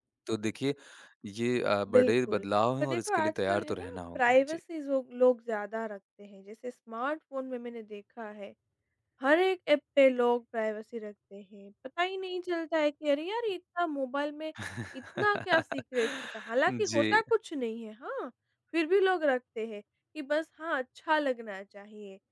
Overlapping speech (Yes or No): Yes